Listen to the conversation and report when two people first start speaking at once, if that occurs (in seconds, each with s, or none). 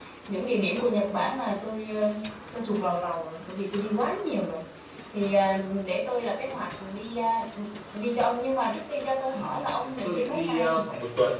9.3 s